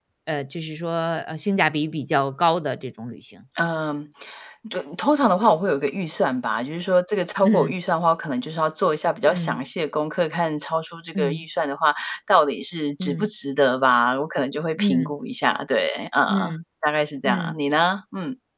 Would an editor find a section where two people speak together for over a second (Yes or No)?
No